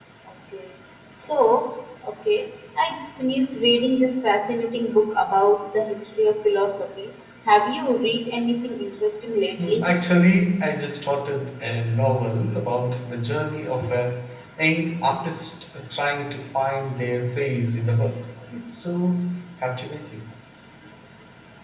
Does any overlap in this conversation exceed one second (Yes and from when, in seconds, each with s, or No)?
No